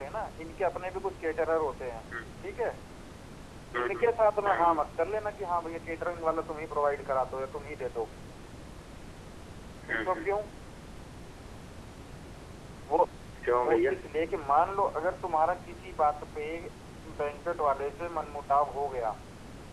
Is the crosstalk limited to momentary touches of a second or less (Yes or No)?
Yes